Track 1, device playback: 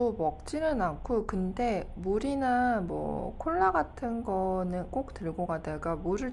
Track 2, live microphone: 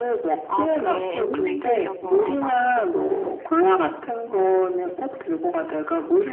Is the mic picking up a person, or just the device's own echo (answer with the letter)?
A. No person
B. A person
B